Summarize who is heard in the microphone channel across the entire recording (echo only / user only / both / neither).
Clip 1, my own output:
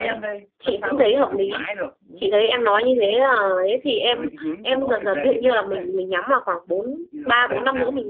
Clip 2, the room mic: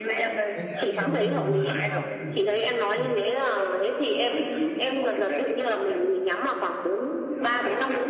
both